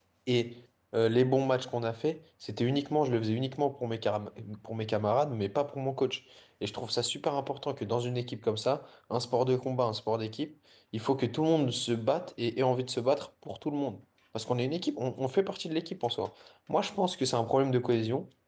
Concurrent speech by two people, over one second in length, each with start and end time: none

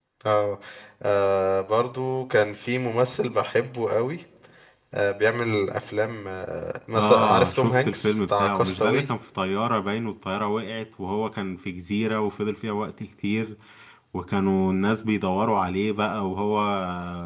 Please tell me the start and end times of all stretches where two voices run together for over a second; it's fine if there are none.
6.9-9.1

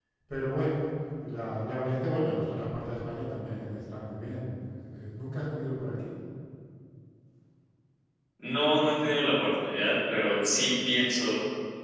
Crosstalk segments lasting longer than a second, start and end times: none

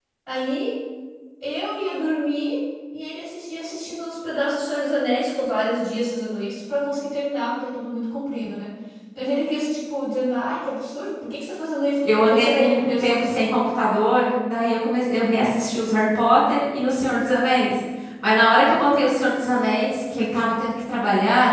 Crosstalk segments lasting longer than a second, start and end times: 12.0-13.4

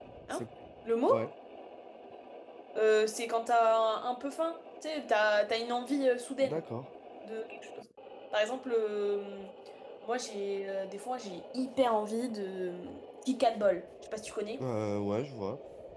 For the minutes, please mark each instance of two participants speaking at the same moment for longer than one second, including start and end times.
none

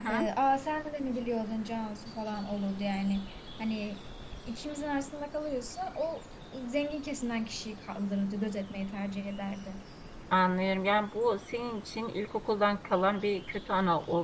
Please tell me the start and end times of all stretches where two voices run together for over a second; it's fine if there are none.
none

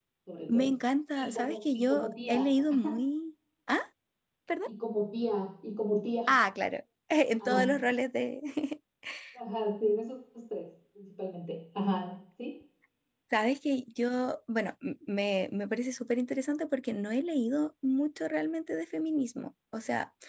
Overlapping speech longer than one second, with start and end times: 1.1-2.5

